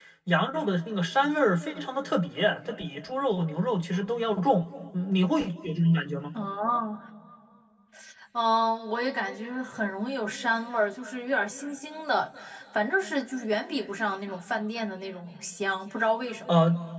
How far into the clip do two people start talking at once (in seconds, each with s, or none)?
none